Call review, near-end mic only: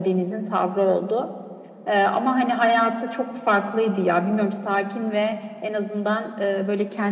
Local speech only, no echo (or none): none